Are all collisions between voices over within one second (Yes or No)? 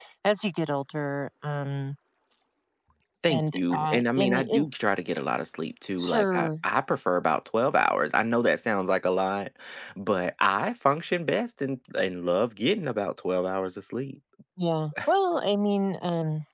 No